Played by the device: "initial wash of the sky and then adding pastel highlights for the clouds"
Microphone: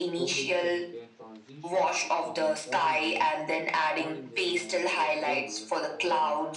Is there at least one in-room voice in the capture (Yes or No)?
Yes